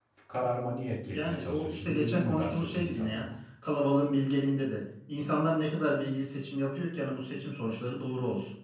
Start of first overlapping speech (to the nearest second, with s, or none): 1 s